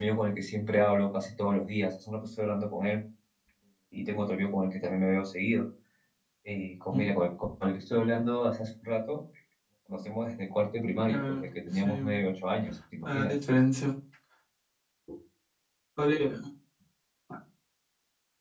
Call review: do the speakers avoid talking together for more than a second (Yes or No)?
No